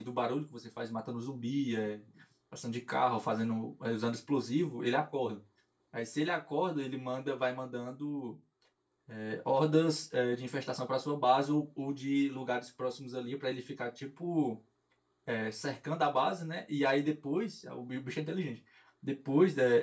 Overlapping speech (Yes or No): No